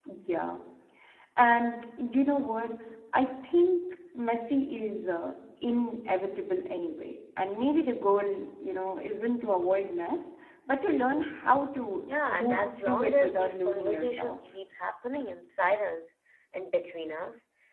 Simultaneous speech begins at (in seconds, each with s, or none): 12.1 s